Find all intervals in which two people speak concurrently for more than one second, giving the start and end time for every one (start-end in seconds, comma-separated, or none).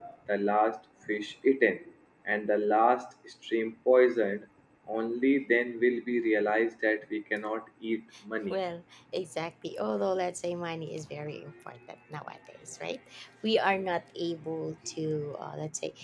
none